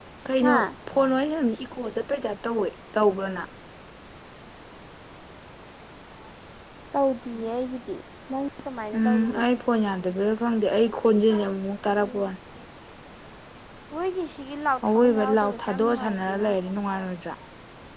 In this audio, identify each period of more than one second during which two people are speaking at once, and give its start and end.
14.9-16.5

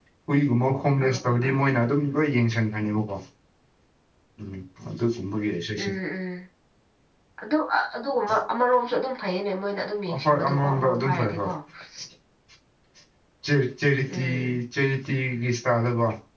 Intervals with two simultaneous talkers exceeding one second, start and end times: 10.1-11.4

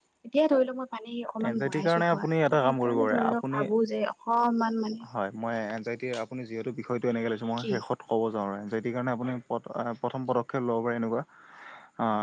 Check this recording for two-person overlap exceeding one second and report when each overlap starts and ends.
1.5-3.6

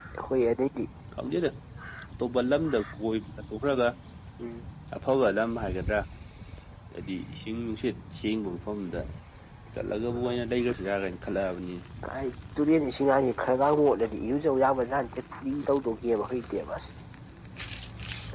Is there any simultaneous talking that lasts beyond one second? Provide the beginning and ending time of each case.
none

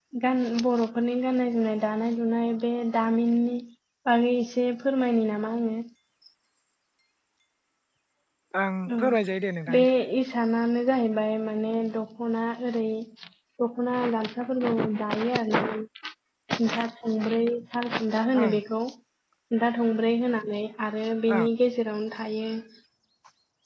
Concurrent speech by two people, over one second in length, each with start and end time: none

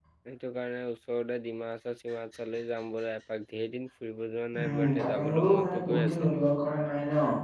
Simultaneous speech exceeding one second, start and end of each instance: 4.6-6.1

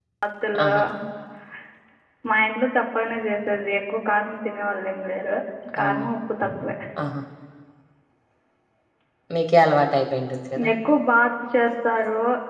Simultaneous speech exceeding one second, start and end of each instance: none

